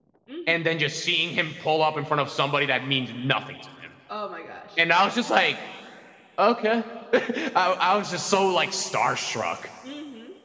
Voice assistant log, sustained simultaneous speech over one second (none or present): none